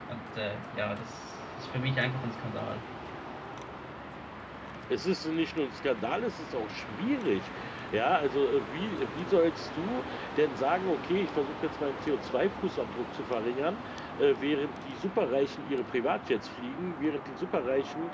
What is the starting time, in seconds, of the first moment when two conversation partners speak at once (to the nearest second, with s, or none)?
none